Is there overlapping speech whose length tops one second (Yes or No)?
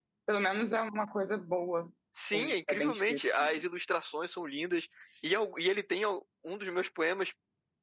Yes